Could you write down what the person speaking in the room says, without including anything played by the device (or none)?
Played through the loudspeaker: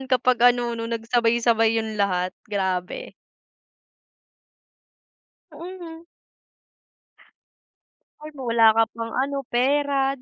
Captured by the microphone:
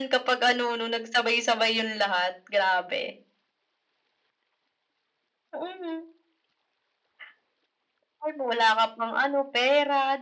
none